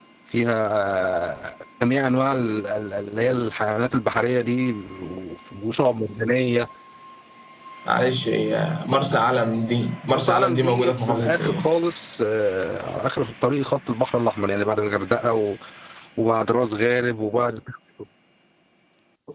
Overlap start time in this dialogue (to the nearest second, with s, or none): 10 s